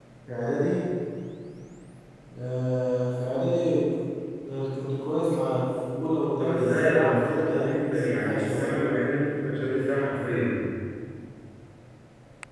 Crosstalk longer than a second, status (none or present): present